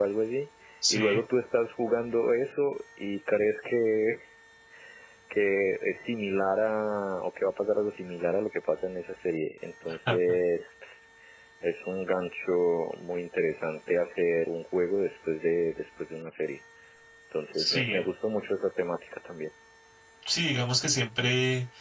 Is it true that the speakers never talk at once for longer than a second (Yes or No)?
Yes